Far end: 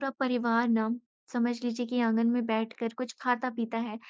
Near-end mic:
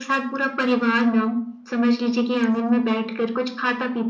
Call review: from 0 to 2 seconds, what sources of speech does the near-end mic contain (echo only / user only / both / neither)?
echo only